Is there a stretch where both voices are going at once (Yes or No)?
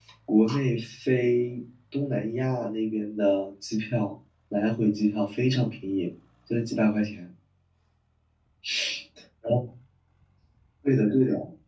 No